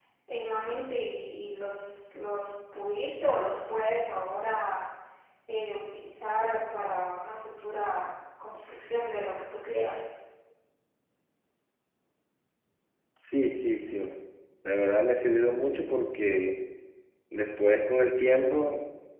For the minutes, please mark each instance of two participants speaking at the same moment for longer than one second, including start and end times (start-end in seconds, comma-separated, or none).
none